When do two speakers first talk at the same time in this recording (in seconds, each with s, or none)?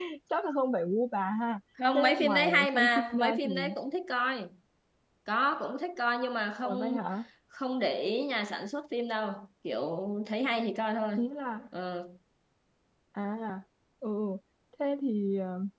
1.9 s